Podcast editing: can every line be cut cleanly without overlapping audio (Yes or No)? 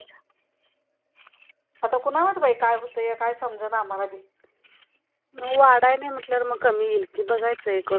Yes